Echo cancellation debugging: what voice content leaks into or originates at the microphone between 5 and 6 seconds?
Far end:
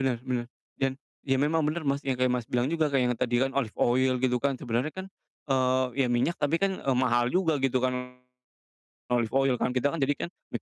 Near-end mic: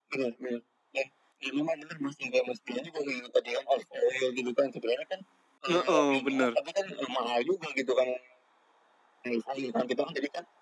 both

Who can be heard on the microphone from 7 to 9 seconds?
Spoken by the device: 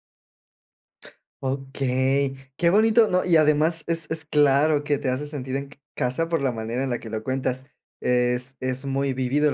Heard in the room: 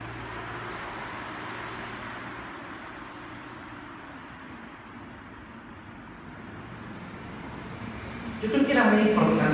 user only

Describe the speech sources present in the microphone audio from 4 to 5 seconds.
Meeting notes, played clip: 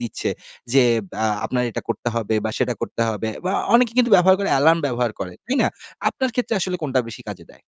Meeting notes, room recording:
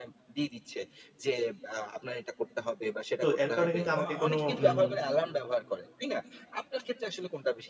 both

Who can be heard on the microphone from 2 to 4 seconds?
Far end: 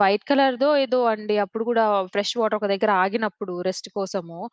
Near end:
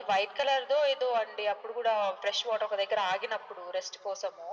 echo only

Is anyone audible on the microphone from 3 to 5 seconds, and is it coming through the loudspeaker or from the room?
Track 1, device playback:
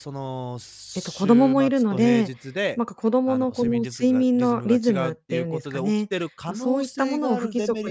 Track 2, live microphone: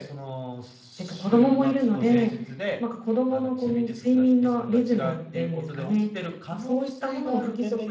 echo only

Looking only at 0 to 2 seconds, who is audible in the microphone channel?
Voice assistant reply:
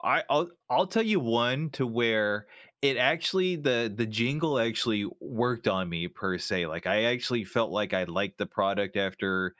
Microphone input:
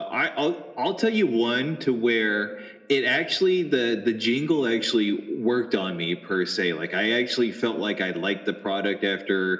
echo only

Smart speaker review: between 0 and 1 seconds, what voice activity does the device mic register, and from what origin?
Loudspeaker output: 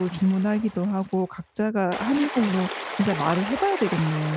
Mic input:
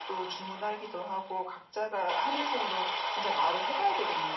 echo only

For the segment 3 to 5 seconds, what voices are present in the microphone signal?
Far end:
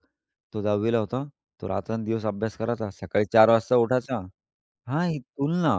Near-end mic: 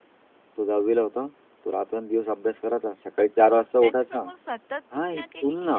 both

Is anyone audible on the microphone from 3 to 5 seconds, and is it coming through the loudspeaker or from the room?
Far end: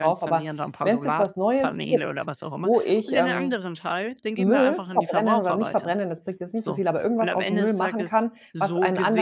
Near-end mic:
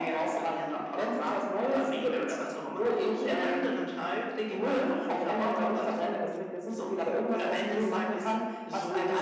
echo only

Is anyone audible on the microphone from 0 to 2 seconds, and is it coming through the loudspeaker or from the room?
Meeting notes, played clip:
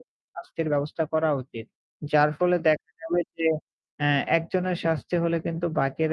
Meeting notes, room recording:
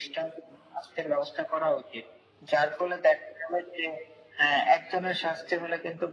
echo only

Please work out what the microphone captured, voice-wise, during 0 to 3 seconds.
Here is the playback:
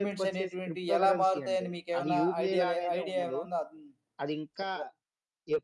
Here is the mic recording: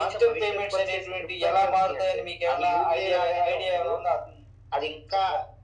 echo only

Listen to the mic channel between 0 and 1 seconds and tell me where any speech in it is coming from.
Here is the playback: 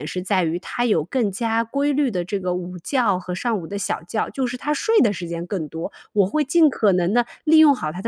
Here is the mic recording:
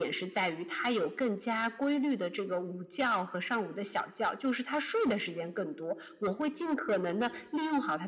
echo only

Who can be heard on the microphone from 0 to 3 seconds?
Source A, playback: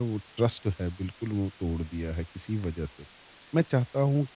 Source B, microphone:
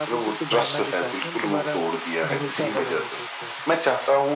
both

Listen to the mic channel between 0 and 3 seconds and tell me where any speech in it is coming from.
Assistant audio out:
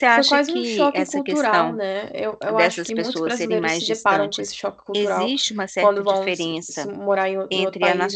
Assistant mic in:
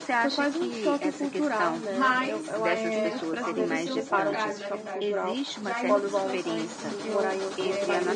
both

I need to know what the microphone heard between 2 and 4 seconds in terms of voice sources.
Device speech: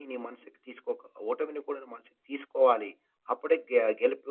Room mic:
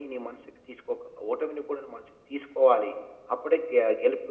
echo only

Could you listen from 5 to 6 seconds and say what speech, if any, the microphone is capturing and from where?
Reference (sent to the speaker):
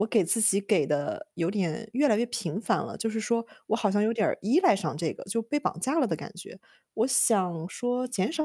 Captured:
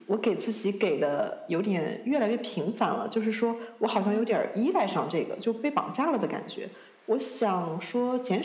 echo only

